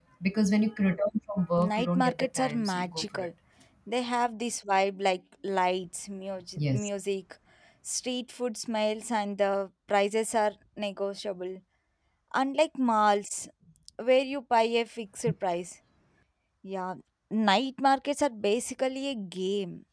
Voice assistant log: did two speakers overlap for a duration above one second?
Yes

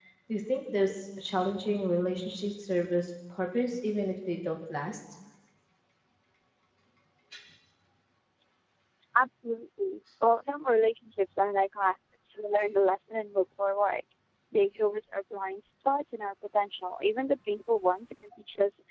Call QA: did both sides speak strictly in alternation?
Yes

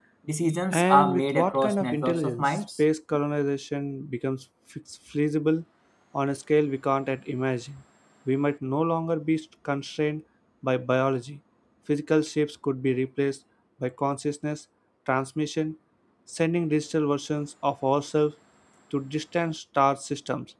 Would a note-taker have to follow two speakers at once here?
Yes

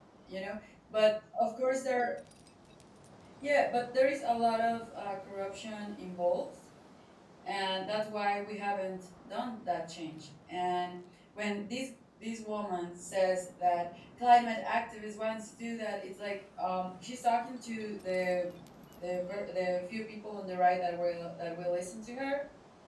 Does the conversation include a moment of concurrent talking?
No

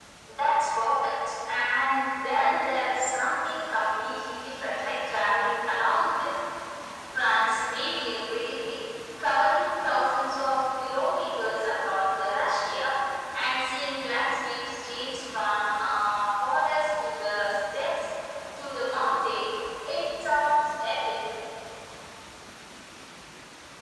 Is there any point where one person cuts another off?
No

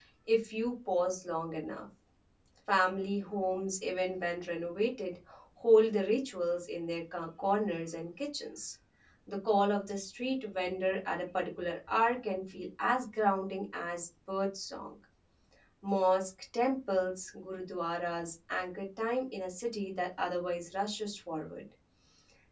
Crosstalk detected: No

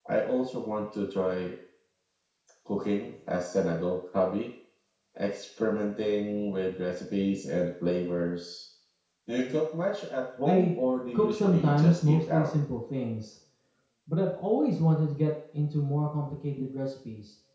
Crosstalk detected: Yes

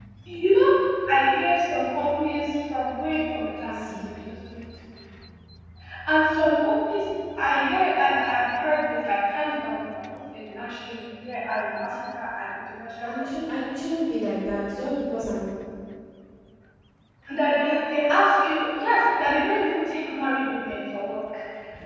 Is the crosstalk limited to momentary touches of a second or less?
Yes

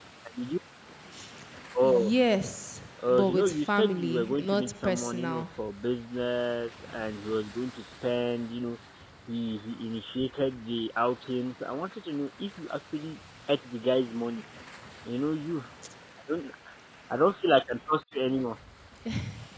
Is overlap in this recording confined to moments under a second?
No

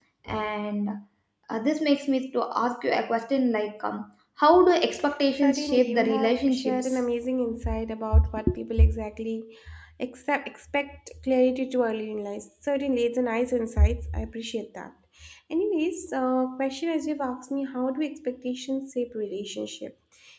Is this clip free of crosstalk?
No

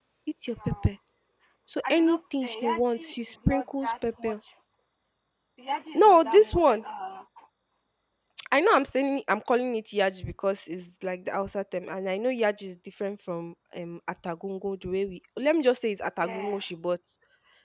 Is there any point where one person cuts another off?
Yes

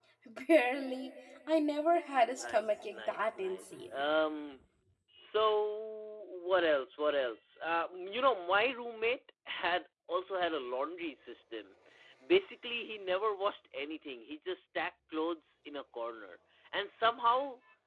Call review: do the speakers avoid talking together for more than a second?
No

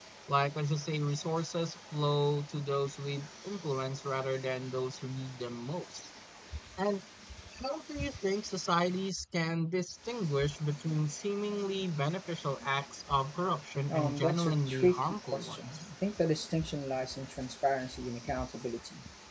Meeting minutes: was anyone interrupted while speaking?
Yes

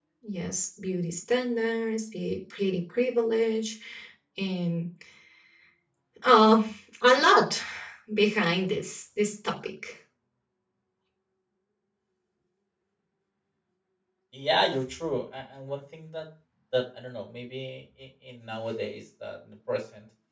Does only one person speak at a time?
Yes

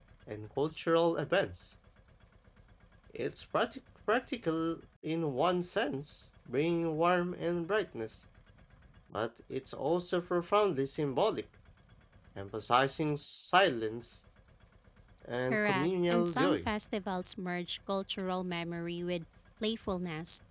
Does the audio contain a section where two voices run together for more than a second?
Yes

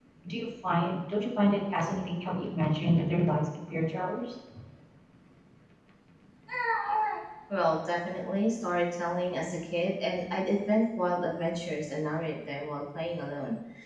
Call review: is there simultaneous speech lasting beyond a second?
No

